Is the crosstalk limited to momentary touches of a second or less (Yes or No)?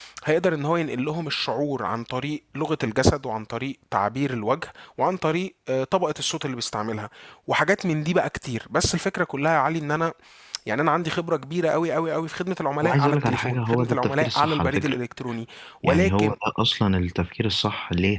No